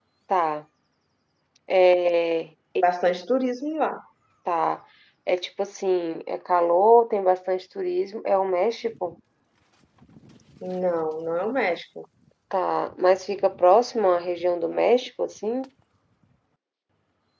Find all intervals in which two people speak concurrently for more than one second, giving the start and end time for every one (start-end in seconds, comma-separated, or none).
none